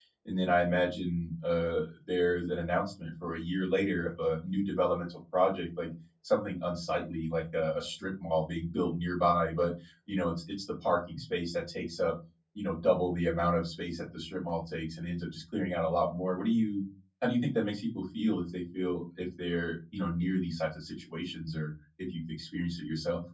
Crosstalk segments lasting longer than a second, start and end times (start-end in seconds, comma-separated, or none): none